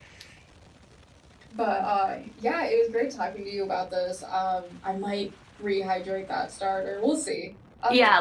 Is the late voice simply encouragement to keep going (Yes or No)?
No